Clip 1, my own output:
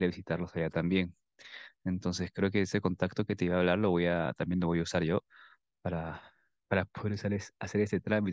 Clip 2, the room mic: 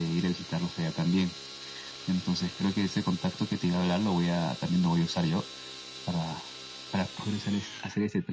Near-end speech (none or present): none